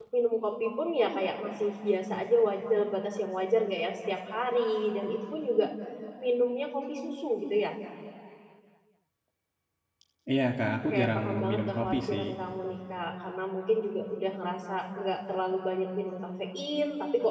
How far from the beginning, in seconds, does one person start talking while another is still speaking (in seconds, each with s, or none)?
10.9 s